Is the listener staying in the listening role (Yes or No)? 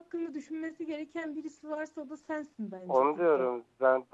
No